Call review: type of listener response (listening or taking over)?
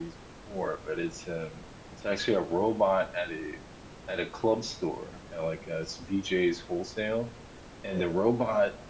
listening